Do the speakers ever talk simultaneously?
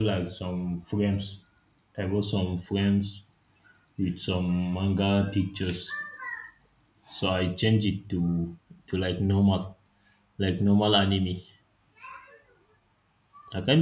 No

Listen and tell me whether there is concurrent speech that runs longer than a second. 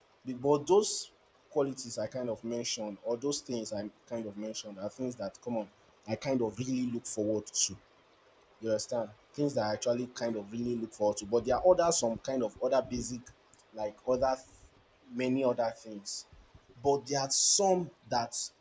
No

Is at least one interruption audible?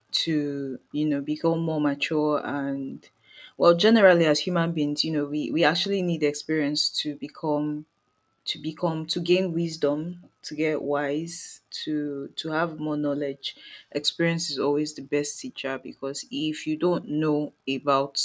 No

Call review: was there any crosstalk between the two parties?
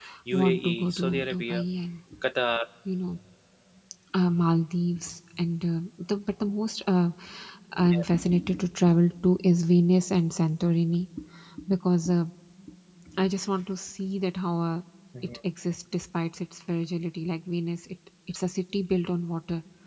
Yes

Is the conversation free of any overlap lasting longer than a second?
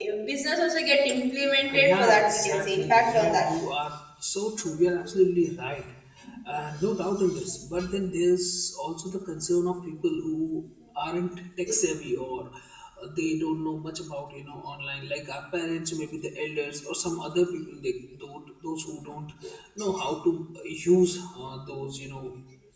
No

